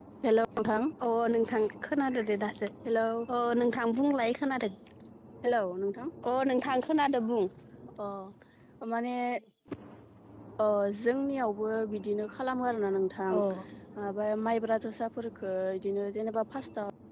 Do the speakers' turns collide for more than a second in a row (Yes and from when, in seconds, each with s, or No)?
No